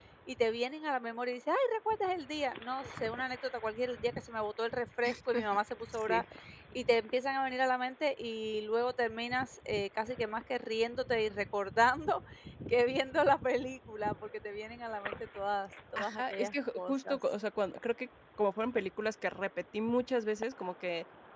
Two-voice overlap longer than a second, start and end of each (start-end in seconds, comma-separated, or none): 16.0-17.2